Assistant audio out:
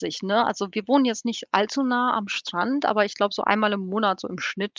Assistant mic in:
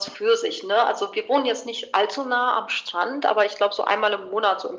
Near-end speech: none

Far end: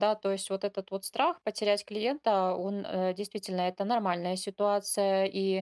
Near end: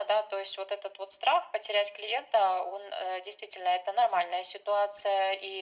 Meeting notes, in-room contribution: none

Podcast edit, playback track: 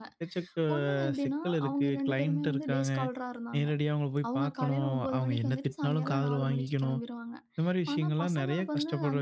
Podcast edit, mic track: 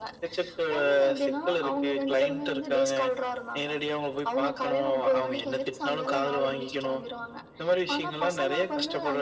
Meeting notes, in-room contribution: none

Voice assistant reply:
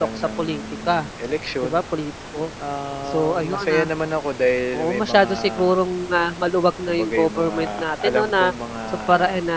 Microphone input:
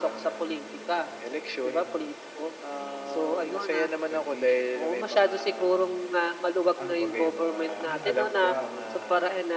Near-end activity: present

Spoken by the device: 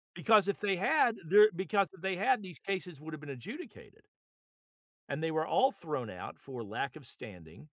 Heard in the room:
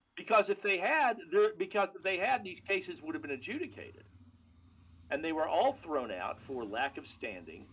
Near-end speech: none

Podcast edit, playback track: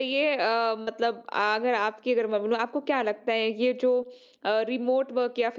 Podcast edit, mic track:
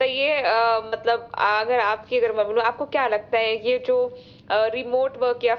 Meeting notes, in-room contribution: none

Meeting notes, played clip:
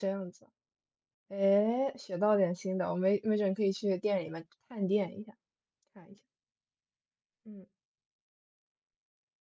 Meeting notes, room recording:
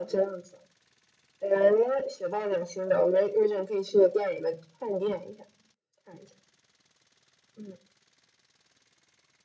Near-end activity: none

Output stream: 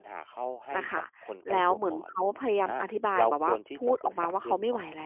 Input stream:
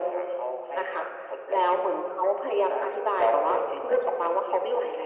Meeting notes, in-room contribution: none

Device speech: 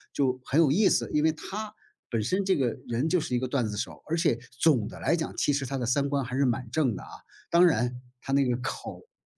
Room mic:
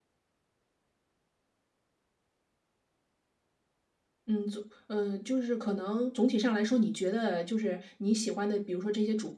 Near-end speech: present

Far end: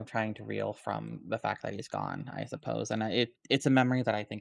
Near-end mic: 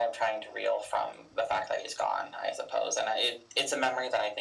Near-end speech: none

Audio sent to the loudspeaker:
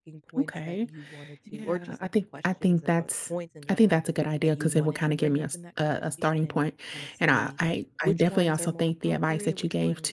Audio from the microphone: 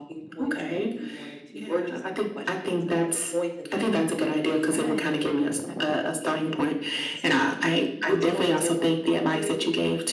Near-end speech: present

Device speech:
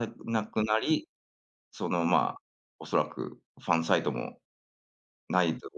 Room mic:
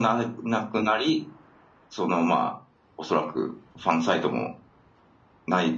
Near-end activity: none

